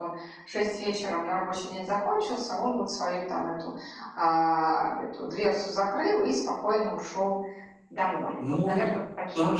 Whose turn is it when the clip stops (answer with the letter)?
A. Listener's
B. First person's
A